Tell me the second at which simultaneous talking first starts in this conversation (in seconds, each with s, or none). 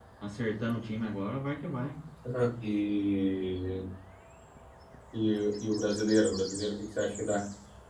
none